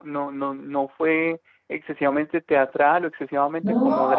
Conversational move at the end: listening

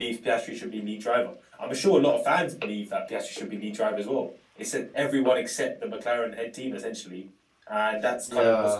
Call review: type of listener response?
listening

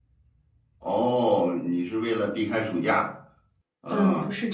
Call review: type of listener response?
taking over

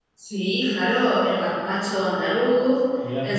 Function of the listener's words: listening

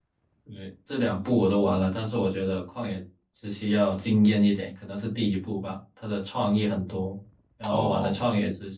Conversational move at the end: listening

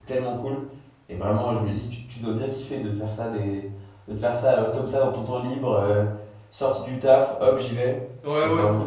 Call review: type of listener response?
taking over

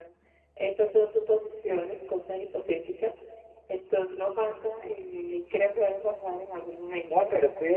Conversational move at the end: taking over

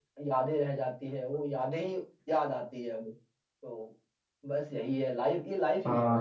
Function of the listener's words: taking over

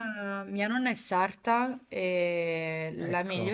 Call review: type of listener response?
listening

